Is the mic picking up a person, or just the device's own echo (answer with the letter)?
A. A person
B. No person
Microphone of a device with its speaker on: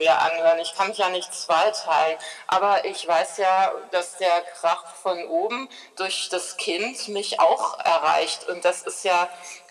B